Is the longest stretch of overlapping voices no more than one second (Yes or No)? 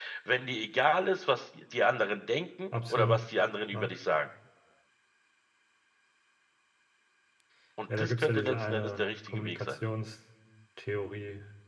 No